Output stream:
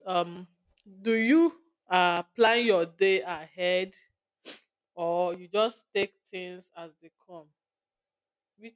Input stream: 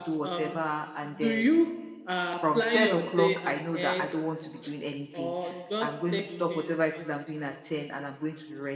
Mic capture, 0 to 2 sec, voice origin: both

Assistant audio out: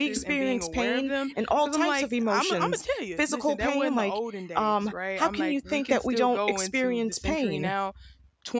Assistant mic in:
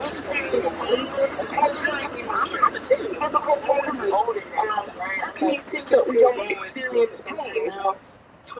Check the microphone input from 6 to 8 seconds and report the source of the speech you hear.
echo only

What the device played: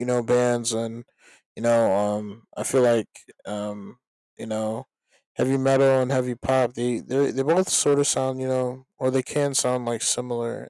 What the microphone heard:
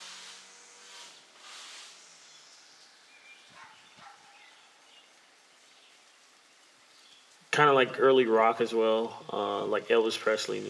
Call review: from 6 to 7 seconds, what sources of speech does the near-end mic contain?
neither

